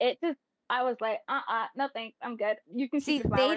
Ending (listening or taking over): taking over